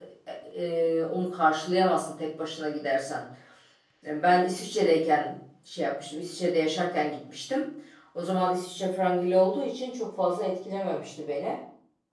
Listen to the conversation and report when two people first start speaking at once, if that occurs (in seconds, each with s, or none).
none